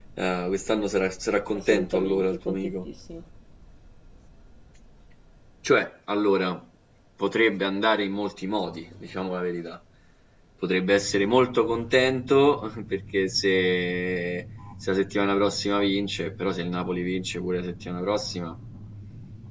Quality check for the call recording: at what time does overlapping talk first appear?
2 s

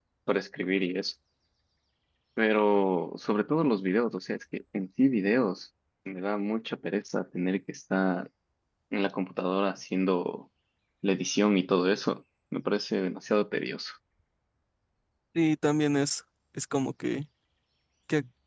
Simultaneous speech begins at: none

